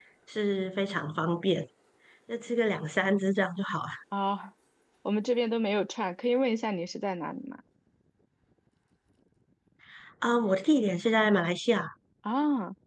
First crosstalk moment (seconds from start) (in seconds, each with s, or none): none